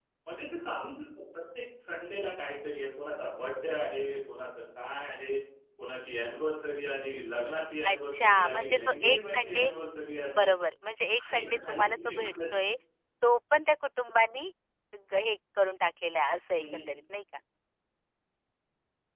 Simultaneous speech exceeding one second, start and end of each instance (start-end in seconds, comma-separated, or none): 7.9-9.7, 11.2-12.5